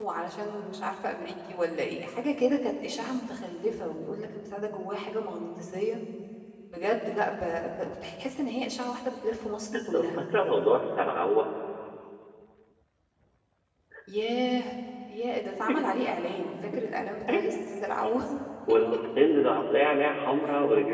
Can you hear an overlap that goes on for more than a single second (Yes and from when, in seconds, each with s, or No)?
No